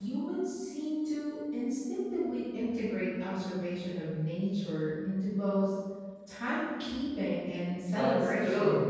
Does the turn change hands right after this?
Yes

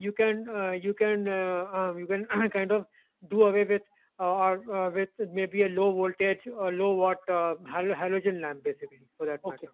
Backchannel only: No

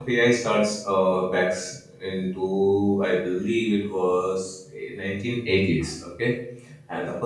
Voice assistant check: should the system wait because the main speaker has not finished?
Yes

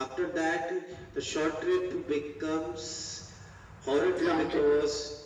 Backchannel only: Yes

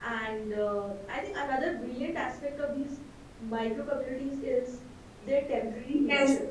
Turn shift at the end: Yes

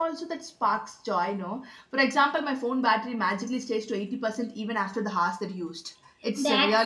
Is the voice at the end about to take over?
Yes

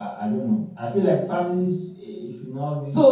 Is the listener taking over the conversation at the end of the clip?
Yes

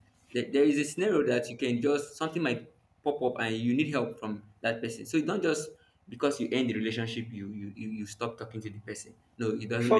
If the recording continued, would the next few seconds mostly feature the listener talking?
Yes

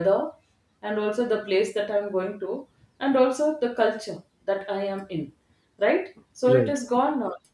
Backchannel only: Yes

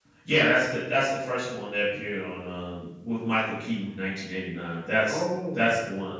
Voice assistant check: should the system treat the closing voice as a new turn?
No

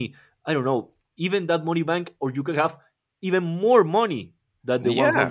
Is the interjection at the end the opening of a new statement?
Yes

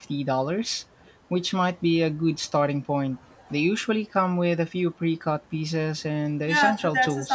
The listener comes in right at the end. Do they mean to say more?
Yes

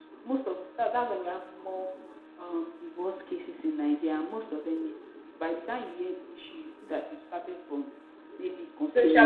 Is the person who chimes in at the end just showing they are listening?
Yes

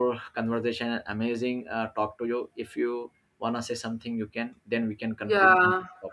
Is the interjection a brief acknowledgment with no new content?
No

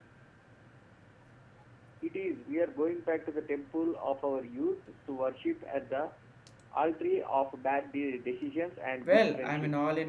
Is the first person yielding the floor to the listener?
Yes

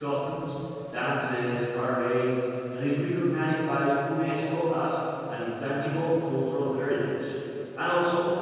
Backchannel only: Yes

